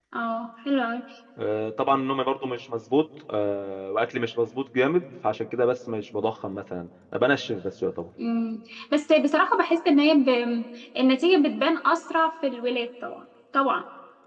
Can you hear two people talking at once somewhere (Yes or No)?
No